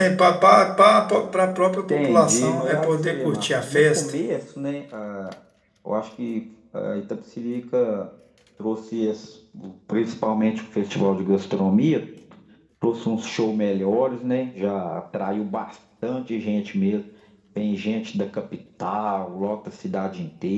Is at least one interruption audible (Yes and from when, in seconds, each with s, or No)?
Yes, from 1.9 s